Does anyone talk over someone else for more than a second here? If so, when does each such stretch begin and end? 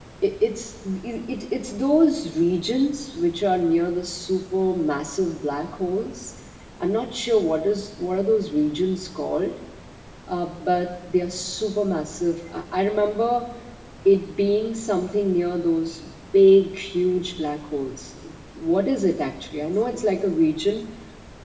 none

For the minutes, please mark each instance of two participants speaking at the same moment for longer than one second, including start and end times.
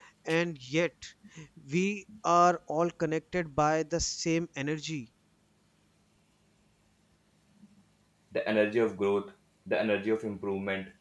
none

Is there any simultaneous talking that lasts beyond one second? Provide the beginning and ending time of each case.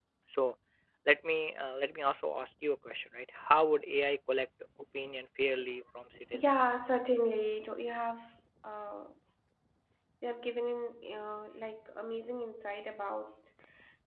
none

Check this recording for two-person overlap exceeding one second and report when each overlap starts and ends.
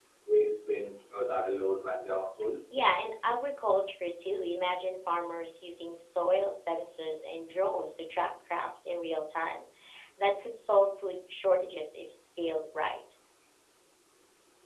none

